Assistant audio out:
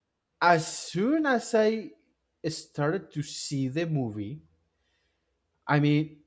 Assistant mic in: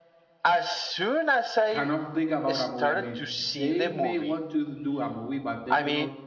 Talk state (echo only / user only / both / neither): both